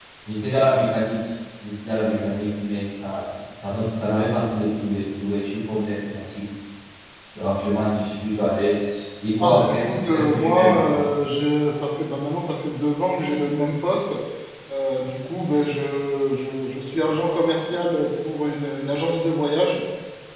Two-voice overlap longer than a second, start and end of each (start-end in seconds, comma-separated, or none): 9.4-11.0